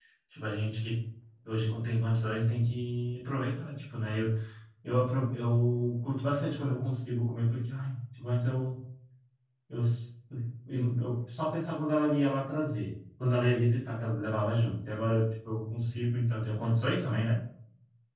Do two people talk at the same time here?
No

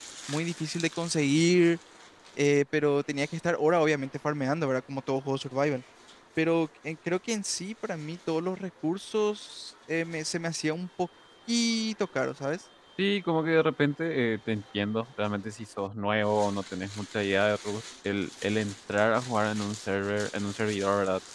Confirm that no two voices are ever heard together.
Yes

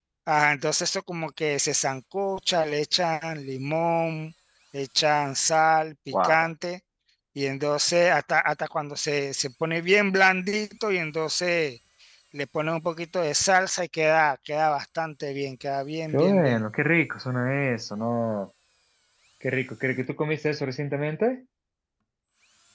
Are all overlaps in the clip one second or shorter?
Yes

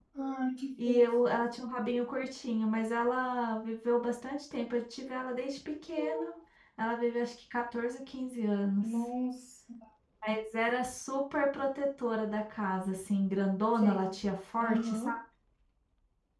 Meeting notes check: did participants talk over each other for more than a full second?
No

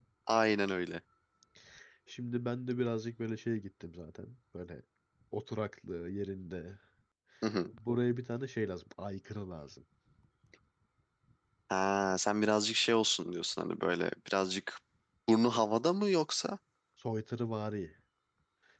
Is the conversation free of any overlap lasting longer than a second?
Yes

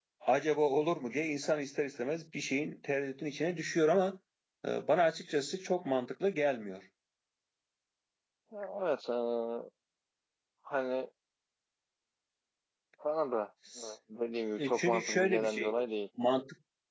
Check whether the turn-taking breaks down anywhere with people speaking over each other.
Yes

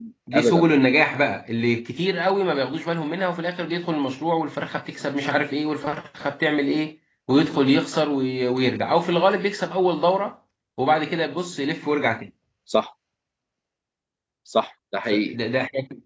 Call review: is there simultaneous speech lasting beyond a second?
No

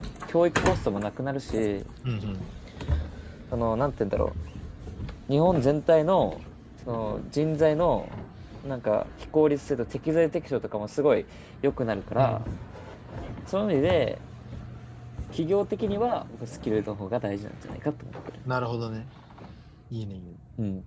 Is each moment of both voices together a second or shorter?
Yes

